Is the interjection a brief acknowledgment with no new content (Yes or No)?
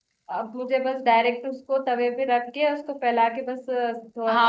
No